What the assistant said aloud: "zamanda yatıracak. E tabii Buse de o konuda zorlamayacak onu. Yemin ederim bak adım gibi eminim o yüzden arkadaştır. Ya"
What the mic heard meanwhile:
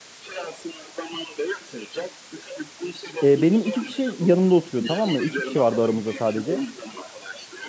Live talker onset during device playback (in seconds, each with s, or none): 3.2 s